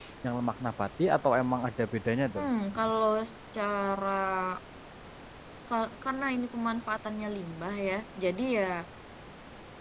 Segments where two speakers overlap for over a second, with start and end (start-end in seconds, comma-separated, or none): none